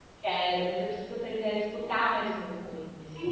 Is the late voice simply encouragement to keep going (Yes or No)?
No